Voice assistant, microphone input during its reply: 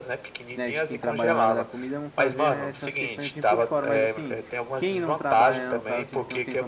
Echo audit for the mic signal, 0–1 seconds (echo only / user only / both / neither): both